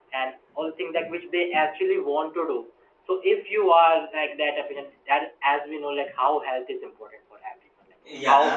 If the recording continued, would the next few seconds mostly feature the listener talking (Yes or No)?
No